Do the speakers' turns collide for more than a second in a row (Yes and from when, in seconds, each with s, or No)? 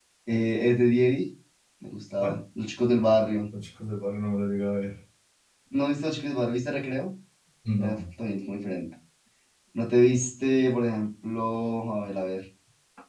No